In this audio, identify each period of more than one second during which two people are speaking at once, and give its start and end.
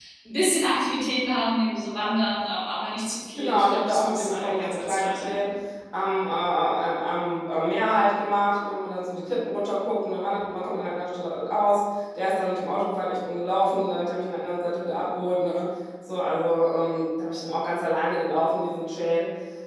3.4-5.4

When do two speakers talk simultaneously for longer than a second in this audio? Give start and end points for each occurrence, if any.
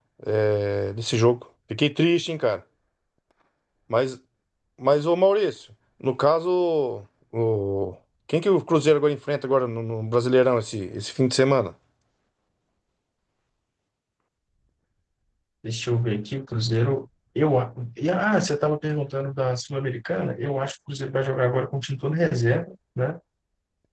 none

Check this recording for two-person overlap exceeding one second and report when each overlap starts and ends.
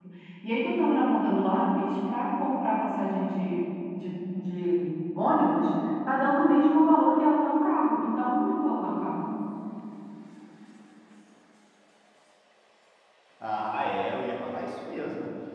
none

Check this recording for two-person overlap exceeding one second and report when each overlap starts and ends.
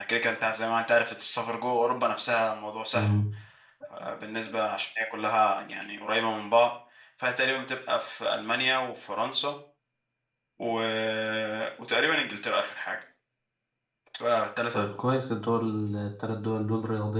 none

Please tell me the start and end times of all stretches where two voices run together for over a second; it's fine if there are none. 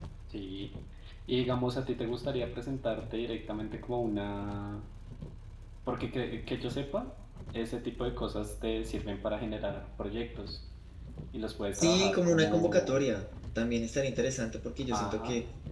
11.7-13.0

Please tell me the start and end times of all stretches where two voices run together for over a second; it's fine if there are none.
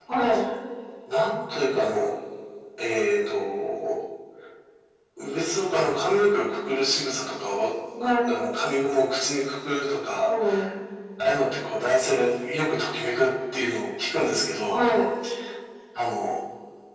none

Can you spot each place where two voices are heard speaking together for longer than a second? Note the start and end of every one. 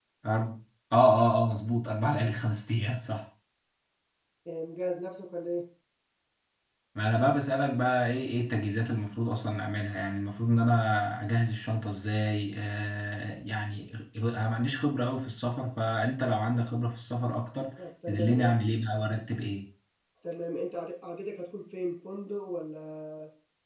none

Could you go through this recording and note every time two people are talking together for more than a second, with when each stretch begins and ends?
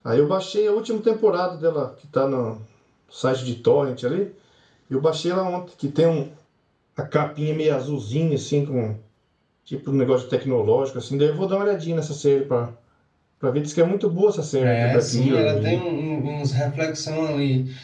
14.6-15.8

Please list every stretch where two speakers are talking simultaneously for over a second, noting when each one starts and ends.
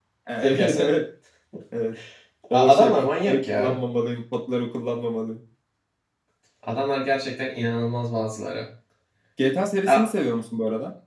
2.5-3.8

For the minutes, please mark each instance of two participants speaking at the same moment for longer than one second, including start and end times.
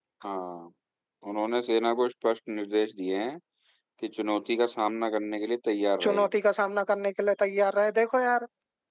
none

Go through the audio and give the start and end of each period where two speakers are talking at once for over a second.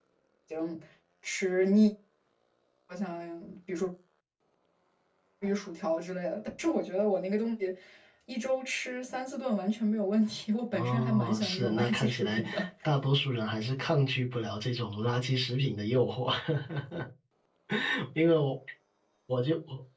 10.7-12.4

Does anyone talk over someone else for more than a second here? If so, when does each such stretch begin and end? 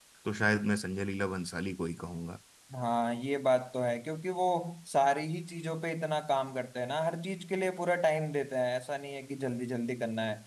none

